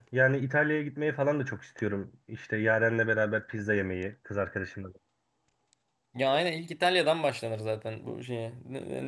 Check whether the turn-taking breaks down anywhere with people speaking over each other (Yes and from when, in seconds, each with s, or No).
No